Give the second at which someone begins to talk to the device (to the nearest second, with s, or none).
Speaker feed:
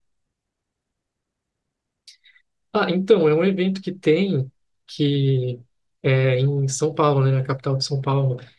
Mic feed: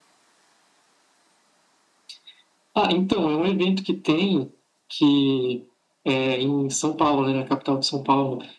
none